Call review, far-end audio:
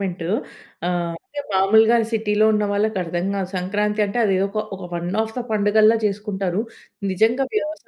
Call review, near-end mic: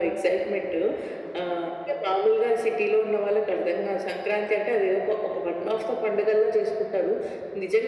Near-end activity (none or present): none